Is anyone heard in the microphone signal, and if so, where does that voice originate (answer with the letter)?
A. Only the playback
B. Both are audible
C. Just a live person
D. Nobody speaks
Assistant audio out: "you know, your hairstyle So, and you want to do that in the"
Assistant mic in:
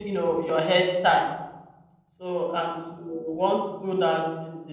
A